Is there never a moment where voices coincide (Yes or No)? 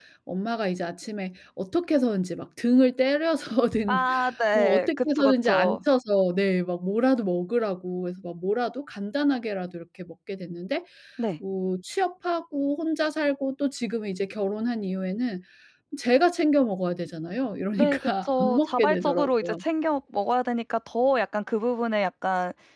No